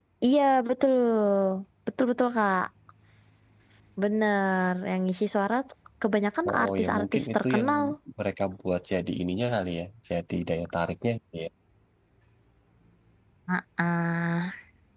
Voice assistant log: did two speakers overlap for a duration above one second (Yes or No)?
Yes